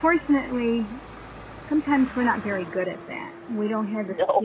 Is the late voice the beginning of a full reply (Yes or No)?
No